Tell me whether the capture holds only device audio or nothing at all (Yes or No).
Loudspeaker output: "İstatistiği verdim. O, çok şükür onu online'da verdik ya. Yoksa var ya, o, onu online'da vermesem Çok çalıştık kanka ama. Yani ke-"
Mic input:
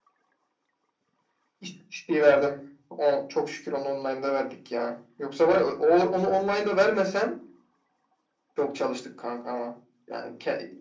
Yes